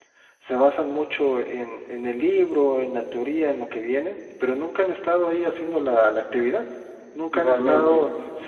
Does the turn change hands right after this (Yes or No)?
No